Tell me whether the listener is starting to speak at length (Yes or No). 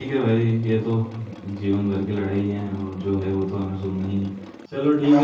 No